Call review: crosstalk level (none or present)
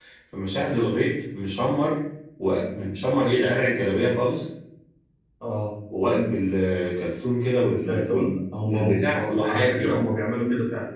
present